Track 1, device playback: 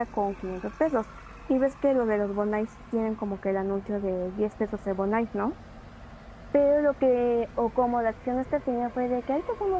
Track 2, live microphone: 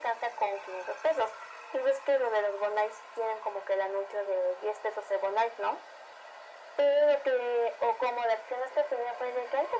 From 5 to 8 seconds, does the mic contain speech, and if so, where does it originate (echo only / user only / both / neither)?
echo only